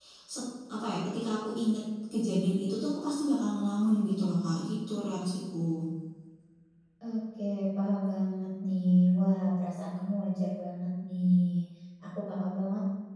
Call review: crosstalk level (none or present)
none